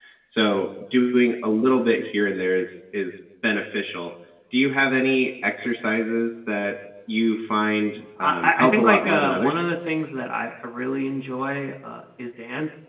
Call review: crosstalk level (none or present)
present